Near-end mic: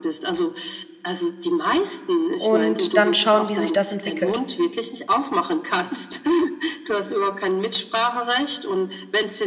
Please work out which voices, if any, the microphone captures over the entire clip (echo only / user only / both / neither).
both